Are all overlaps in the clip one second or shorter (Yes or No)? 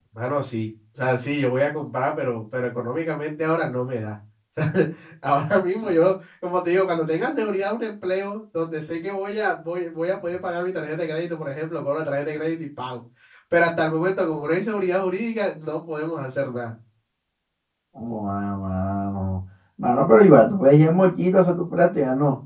Yes